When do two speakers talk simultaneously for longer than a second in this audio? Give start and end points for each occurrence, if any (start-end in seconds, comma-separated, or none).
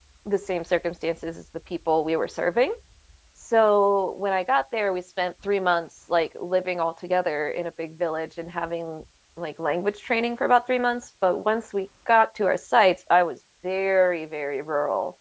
none